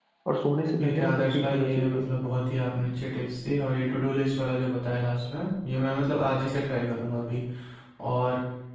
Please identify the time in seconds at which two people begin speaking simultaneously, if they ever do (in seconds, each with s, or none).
0.8 s